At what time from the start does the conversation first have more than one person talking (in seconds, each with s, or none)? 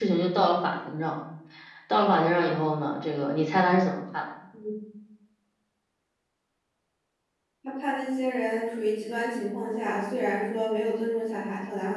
none